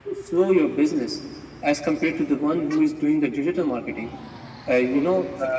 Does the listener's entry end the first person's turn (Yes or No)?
No